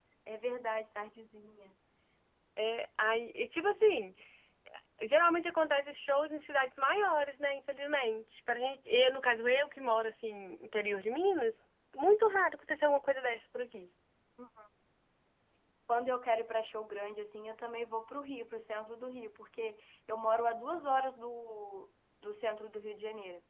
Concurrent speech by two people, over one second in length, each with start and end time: none

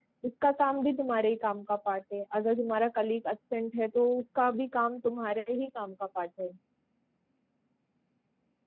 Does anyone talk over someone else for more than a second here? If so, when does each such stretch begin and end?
none

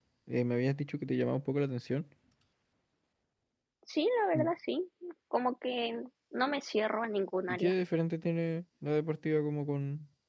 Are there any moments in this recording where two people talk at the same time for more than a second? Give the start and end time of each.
none

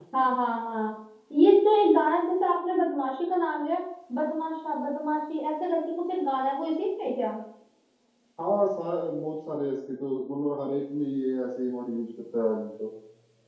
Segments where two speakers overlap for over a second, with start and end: none

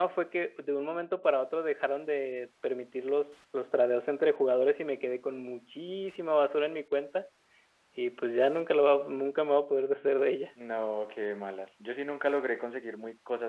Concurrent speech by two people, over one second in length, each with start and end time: none

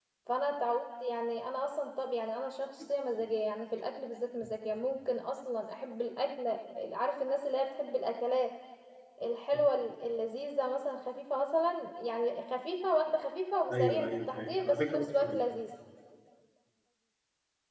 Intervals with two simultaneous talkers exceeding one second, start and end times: 13.7-15.4

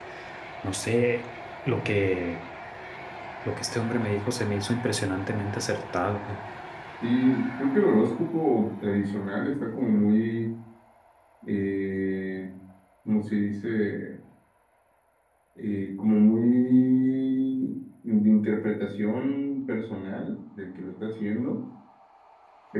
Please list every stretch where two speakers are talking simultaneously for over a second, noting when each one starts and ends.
none

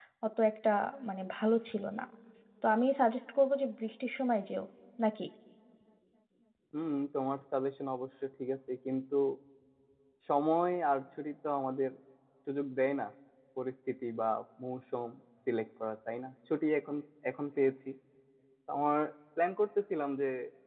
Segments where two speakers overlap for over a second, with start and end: none

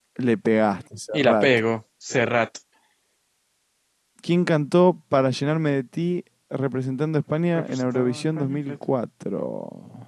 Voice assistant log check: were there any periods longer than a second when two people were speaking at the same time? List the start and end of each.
7.6-8.8

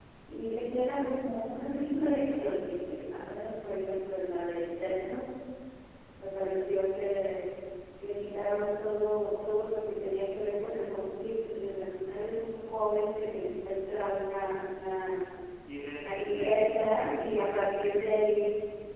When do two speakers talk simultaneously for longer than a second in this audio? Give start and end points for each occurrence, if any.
15.9-17.9

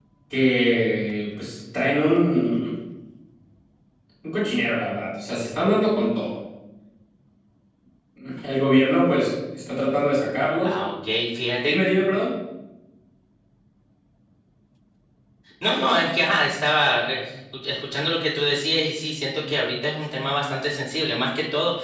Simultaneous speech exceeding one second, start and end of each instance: none

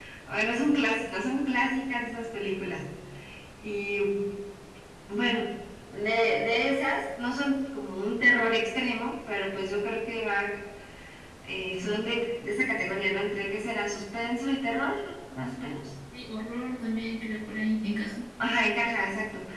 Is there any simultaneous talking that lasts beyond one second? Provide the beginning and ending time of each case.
none

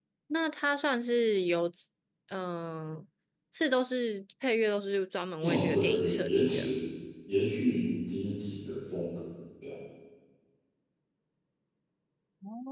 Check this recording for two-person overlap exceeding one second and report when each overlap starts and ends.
5.4-6.7

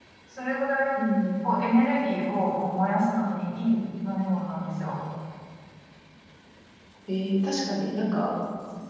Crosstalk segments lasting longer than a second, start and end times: none

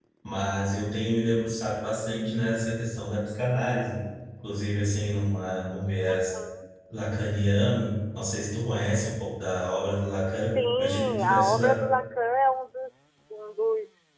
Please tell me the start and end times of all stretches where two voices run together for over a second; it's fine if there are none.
10.6-11.8

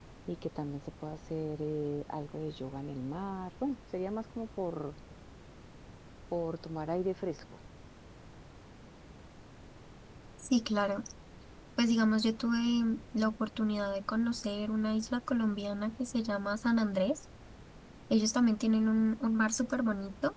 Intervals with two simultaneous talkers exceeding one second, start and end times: none

